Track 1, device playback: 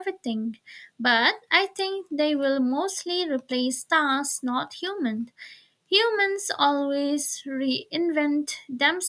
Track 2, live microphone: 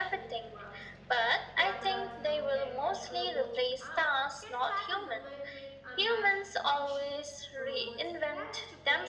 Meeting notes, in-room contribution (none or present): present